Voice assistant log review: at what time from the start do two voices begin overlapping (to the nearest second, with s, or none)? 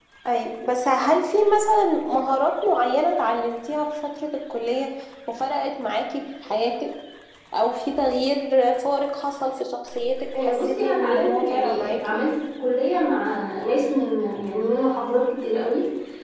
10 s